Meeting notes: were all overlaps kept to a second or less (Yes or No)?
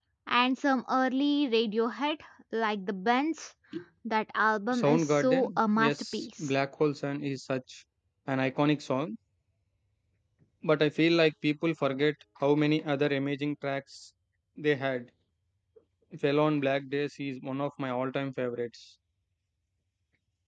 No